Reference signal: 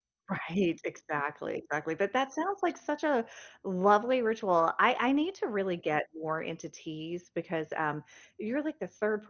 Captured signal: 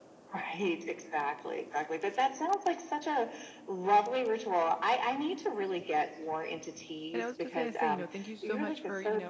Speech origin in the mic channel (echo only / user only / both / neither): both